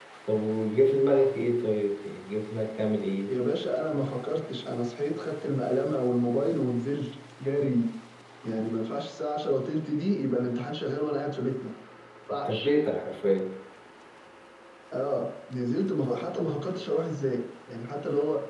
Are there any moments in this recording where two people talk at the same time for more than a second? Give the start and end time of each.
none

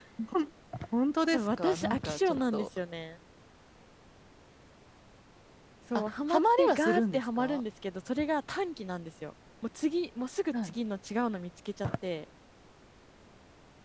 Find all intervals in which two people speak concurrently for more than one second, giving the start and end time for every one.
1.3-2.7, 6.0-7.6

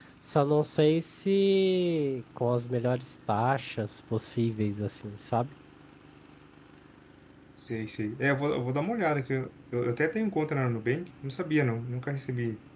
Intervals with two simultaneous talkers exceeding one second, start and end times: none

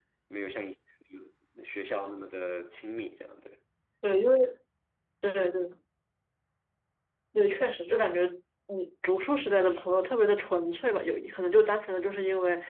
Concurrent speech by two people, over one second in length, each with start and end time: none

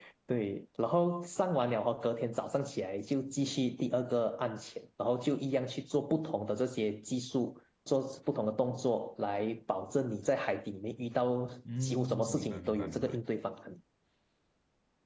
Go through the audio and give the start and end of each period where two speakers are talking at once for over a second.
11.8-13.2

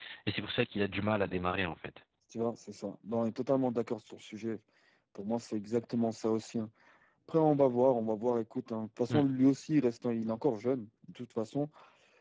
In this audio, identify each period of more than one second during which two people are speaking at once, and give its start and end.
none

